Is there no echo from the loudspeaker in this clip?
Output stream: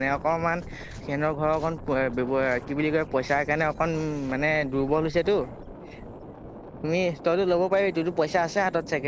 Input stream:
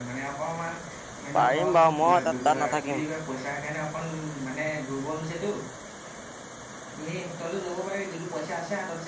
No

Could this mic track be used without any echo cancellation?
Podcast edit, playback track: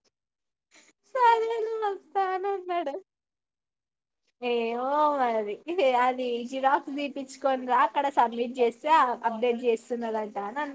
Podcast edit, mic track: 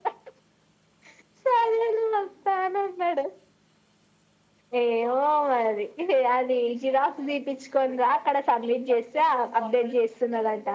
No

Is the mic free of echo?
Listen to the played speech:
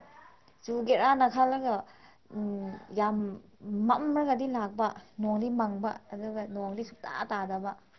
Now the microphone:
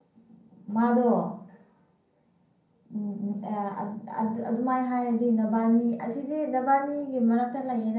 Yes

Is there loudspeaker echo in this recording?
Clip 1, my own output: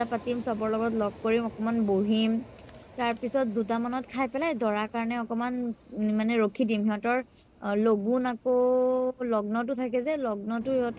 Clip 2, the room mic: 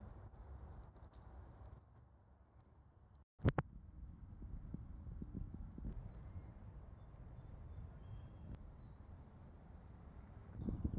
No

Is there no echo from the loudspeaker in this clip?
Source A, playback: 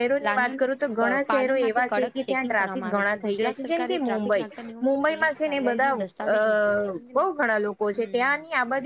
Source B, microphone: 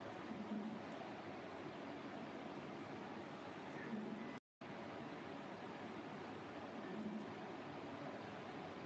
Yes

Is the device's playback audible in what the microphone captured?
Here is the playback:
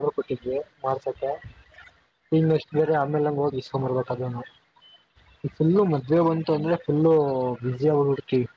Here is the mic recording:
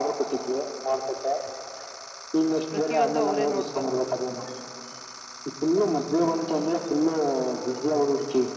Yes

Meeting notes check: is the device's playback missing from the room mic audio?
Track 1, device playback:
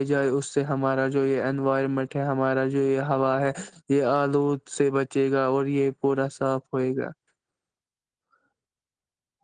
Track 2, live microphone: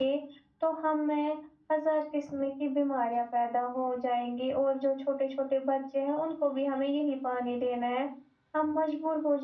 Yes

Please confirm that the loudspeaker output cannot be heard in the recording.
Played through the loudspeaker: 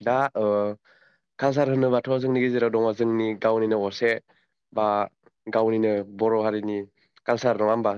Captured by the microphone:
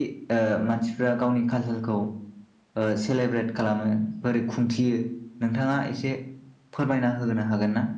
Yes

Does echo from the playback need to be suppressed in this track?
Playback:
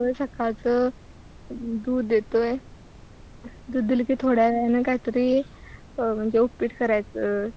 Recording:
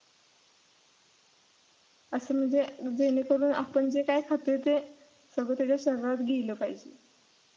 No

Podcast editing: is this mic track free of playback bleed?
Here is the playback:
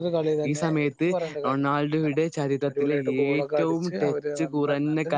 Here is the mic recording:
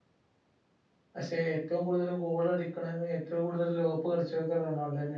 Yes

